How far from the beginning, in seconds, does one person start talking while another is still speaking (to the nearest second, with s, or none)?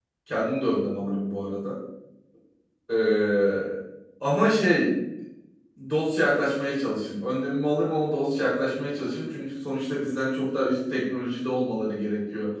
none